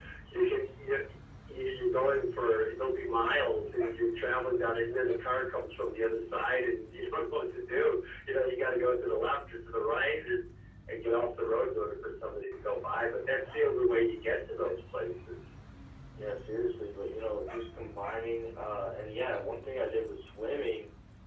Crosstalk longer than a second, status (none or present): none